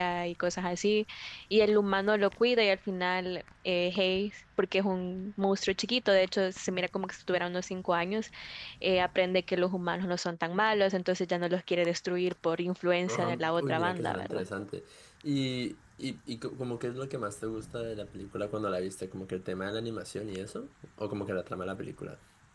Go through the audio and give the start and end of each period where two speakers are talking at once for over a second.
13.1-14.4

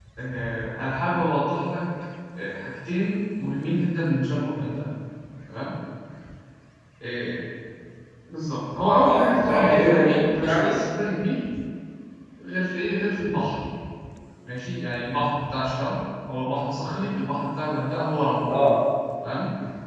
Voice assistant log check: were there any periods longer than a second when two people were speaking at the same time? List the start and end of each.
9.1-10.8

